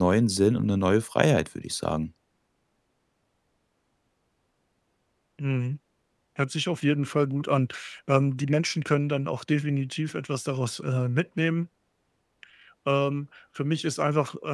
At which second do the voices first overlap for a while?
none

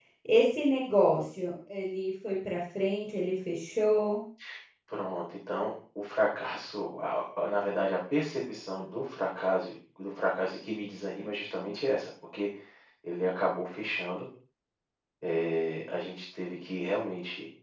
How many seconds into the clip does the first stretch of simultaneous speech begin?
none

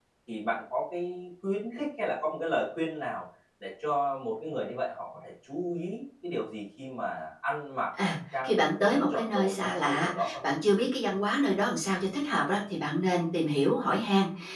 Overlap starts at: 8.4 s

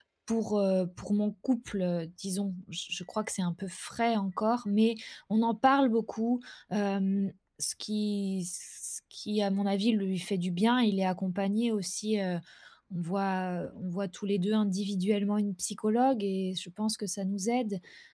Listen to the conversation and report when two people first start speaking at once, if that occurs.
none

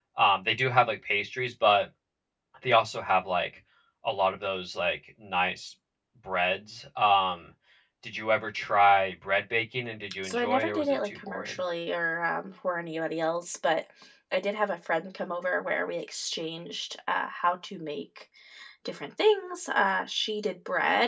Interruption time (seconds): 10.2 s

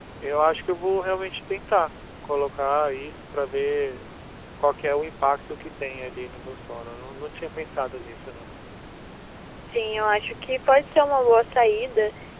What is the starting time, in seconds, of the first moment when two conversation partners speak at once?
none

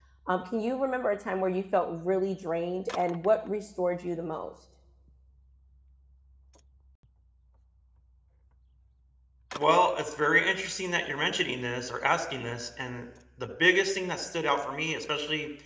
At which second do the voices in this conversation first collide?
none

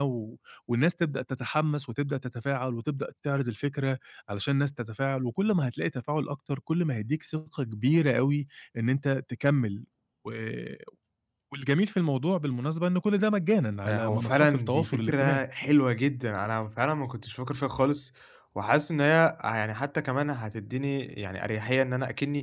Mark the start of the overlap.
13.8 s

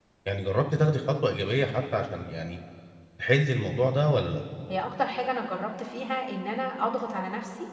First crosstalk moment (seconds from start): none

